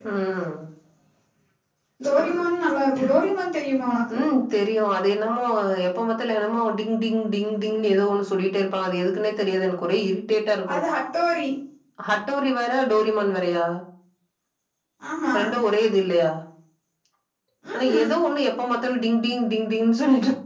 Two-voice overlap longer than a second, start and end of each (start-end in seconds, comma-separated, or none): none